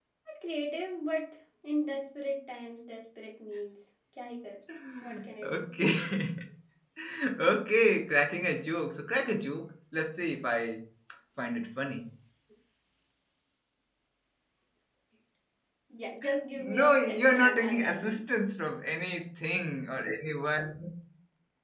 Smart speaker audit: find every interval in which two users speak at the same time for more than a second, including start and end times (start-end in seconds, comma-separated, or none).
16.5-18.2